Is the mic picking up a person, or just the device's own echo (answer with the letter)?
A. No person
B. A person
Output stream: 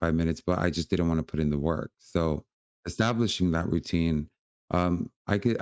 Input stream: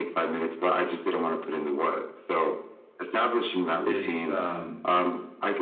B